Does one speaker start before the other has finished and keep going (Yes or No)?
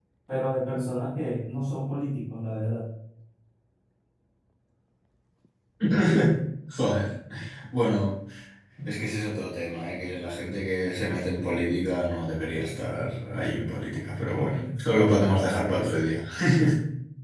Yes